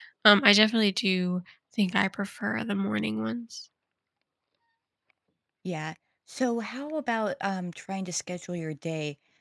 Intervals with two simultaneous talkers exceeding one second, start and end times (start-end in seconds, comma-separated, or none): none